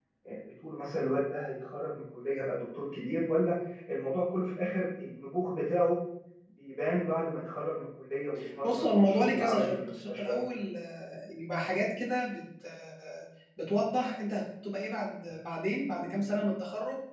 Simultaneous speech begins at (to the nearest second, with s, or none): 9 s